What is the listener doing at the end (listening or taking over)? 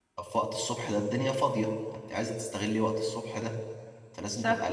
listening